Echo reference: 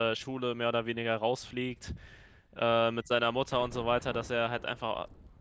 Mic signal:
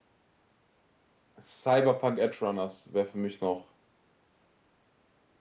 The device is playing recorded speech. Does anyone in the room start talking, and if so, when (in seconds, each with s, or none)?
1.4 s